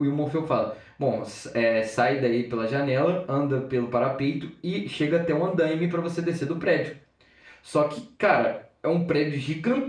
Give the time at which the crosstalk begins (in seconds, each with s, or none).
none